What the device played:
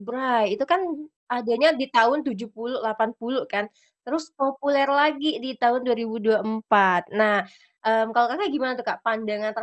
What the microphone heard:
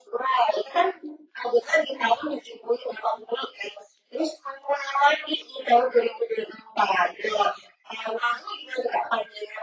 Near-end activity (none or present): none